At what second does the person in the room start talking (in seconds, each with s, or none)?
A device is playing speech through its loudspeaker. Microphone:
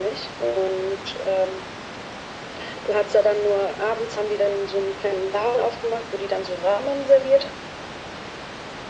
none